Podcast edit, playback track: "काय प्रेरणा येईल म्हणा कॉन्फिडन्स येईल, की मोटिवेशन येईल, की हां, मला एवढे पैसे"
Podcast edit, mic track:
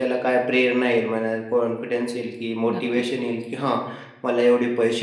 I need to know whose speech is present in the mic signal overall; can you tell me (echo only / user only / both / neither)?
both